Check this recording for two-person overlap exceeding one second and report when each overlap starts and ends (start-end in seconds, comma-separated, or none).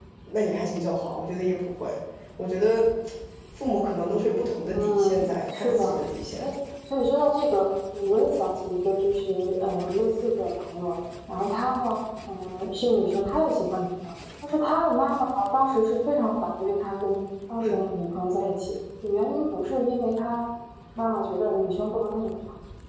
4.7-5.9